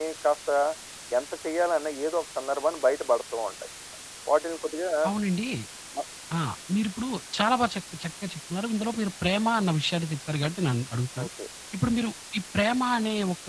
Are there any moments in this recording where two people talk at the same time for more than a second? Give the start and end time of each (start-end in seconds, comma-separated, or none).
none